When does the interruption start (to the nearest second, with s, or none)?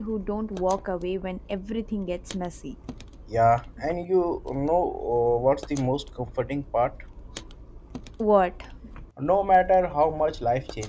none